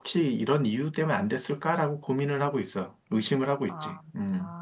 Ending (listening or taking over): taking over